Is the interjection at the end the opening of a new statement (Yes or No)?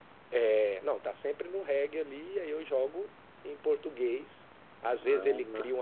No